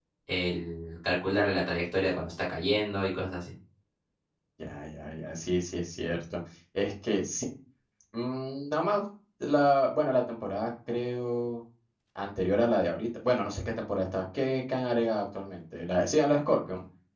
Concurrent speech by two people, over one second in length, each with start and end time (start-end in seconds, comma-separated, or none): none